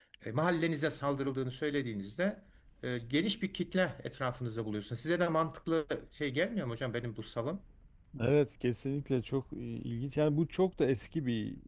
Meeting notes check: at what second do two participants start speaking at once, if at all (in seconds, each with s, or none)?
none